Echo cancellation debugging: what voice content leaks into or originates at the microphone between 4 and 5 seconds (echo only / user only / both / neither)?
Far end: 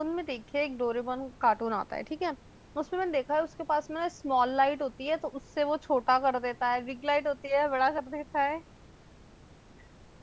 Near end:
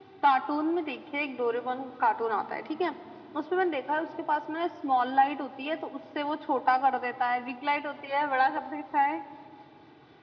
echo only